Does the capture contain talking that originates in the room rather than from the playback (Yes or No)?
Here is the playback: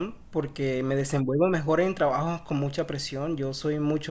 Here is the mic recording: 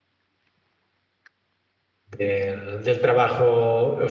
Yes